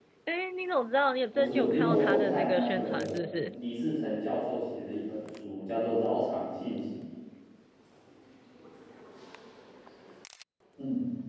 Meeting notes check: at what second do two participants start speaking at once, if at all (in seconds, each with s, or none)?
1.3 s